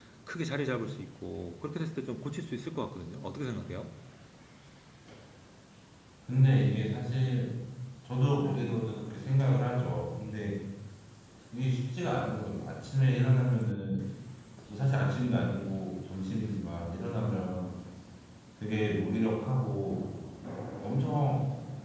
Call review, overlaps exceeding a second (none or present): none